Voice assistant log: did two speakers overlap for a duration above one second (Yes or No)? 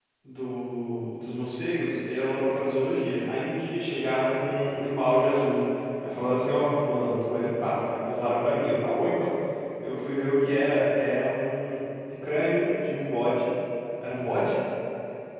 No